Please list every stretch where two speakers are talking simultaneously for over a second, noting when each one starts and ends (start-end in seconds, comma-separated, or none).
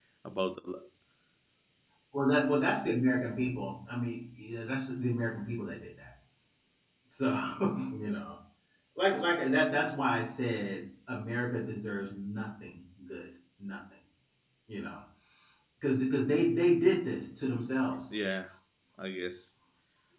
none